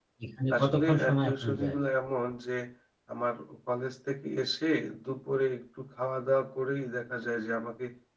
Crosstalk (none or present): present